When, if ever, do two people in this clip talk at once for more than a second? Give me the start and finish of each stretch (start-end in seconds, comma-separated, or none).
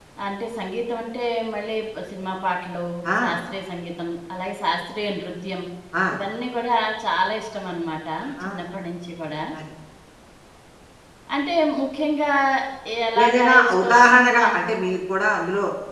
13.2-14.7